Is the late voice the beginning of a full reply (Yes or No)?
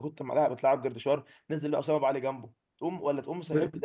No